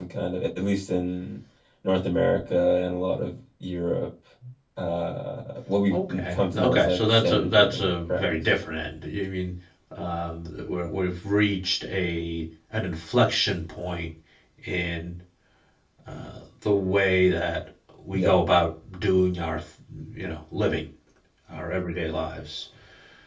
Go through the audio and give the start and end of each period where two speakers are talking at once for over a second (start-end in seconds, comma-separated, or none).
5.9-8.5